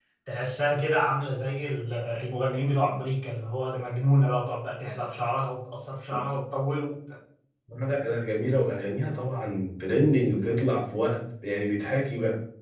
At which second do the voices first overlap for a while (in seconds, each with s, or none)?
none